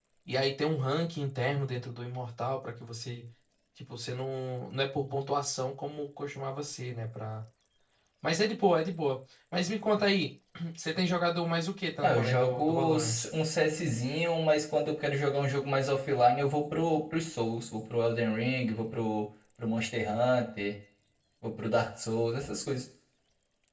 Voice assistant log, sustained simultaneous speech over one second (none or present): present